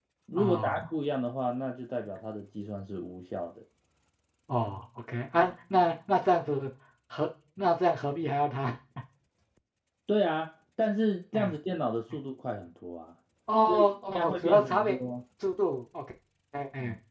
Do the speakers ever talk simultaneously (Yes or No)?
Yes